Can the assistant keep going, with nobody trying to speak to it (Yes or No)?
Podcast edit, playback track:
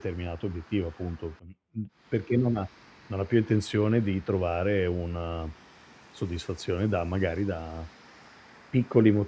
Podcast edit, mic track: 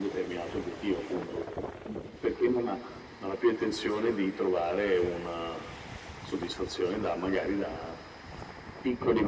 Yes